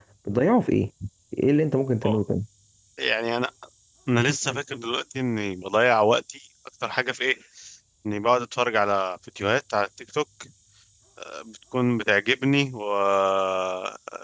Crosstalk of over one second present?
No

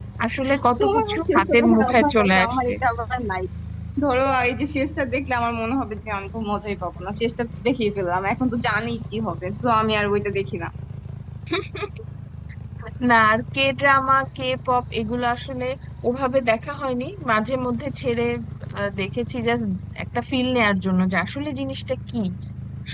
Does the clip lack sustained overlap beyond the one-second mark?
No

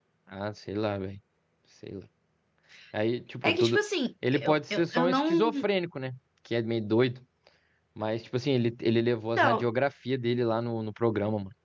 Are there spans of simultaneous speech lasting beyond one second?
Yes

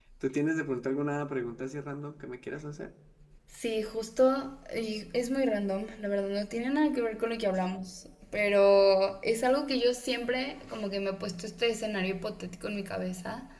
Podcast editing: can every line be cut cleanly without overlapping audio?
Yes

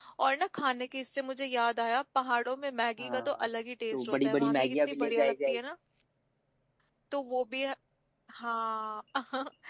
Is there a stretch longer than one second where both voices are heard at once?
Yes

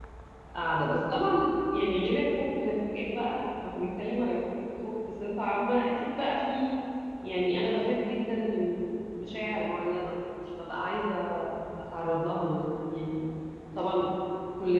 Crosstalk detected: No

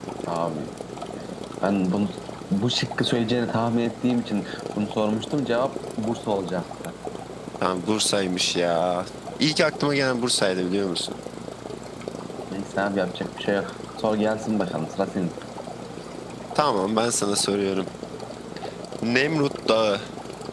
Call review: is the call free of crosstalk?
Yes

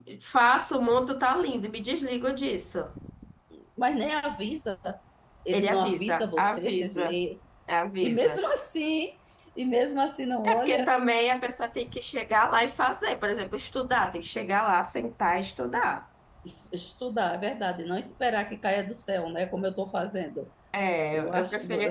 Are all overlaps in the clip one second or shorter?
No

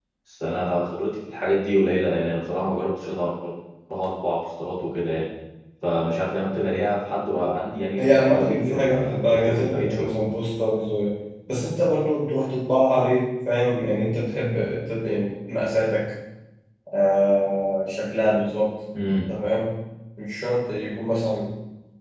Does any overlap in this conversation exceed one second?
Yes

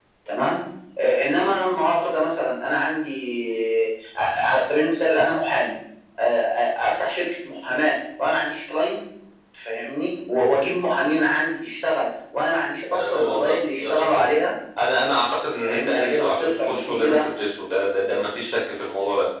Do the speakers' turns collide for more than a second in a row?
Yes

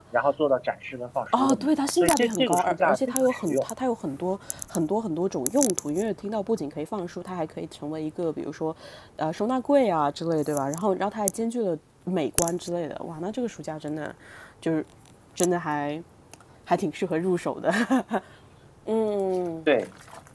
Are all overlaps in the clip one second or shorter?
No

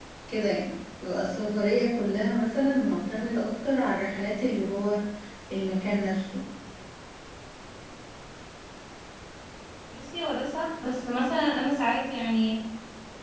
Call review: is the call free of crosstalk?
Yes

